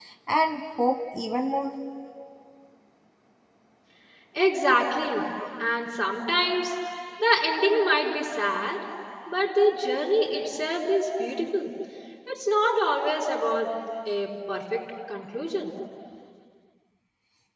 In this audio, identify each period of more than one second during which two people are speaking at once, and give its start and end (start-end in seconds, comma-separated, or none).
none